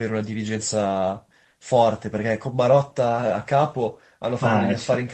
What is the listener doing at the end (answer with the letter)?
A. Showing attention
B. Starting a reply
A